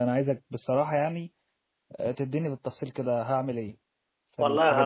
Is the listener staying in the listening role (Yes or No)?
No